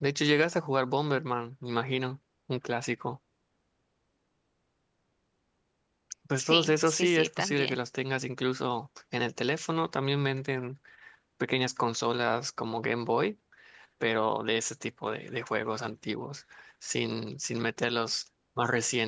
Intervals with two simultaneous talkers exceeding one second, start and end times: 6.4-7.8

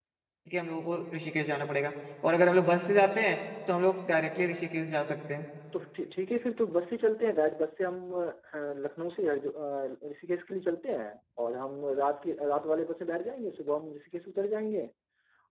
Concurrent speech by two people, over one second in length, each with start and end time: none

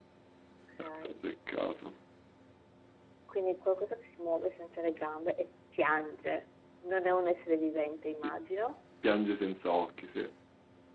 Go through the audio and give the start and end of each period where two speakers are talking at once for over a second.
none

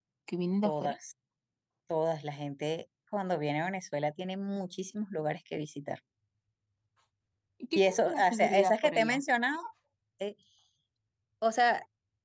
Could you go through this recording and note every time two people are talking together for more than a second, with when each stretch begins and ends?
7.8-9.2

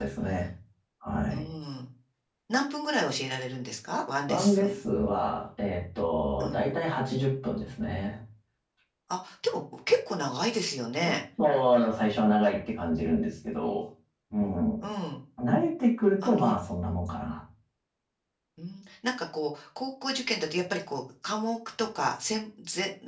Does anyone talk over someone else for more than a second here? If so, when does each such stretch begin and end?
none

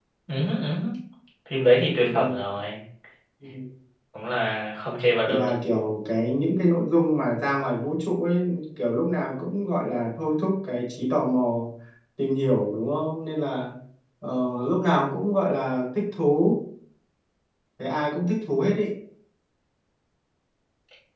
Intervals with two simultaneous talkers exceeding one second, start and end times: none

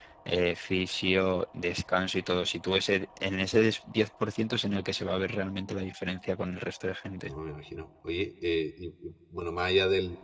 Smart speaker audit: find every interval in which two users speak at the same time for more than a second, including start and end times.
none

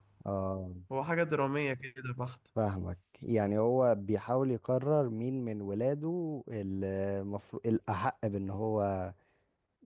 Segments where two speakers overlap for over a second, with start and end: none

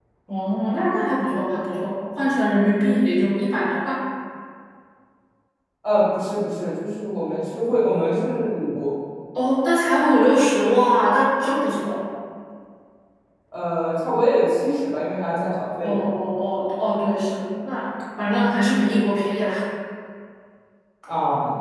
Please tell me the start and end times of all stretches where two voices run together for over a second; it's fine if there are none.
none

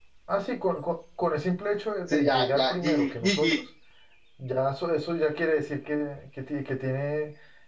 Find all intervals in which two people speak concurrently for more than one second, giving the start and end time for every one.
2.1-3.6

